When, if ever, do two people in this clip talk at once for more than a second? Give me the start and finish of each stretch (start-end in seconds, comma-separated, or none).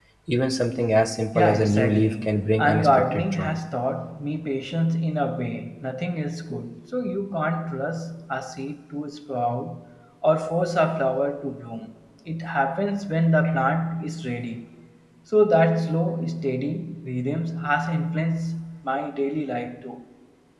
1.4-3.6